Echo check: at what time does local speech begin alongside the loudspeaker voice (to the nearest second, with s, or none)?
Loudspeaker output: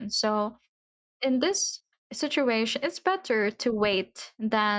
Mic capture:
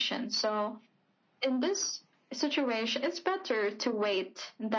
none